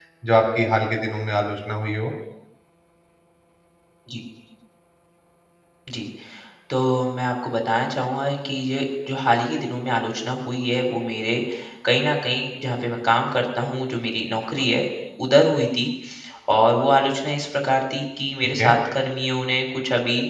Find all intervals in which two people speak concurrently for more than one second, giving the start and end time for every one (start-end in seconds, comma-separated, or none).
none